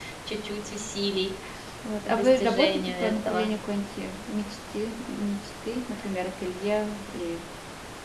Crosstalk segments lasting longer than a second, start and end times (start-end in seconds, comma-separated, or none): 2.0-3.5